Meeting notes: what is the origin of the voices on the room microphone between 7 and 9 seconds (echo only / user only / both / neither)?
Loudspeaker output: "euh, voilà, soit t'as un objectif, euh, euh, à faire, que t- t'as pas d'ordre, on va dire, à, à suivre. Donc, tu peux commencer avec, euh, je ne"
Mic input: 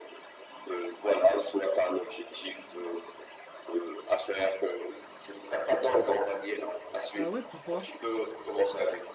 both